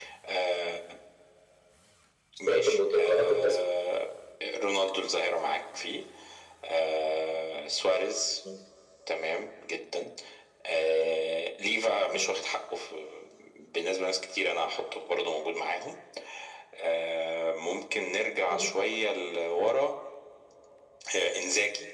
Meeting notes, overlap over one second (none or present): present